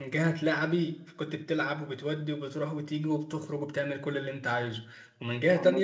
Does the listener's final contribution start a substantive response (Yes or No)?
No